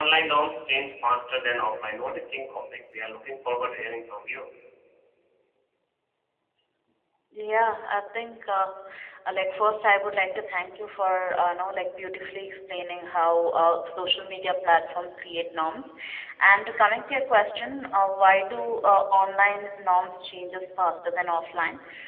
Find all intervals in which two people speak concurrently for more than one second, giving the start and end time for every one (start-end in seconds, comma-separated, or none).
none